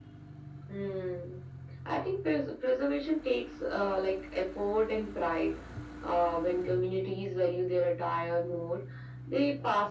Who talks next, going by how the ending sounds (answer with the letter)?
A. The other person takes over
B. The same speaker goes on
B